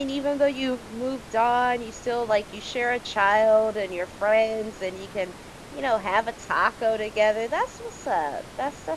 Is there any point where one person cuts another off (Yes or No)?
No